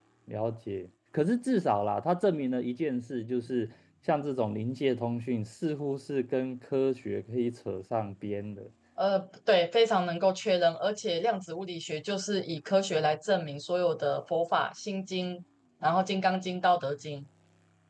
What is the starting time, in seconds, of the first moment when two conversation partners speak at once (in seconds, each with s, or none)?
none